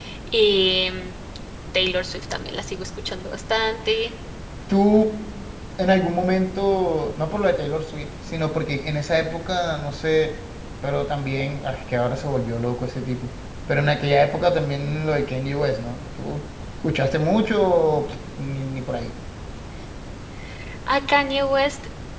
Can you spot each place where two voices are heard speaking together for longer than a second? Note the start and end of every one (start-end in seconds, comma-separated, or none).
none